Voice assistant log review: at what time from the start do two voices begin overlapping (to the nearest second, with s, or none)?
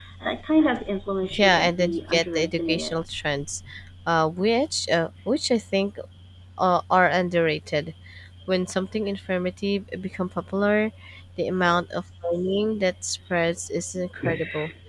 1 s